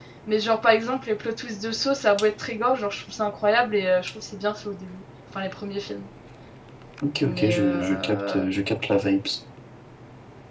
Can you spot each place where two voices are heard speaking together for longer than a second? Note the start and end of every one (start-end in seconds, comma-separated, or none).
7.2-8.4